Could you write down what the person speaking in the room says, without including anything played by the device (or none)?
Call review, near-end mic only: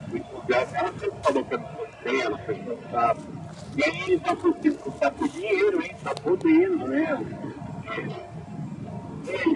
none